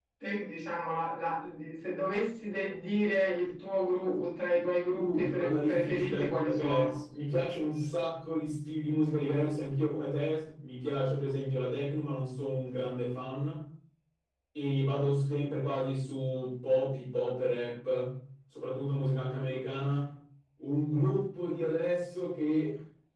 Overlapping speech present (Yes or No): Yes